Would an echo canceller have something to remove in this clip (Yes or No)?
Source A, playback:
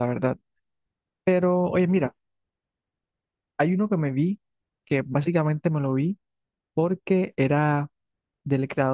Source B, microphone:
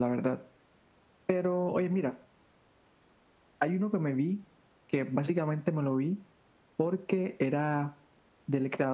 Yes